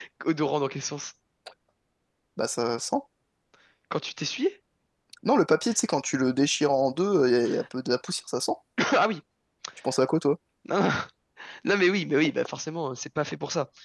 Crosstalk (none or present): none